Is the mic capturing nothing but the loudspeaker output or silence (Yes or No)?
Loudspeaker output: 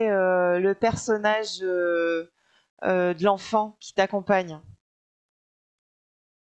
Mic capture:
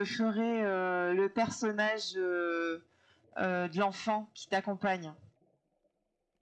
Yes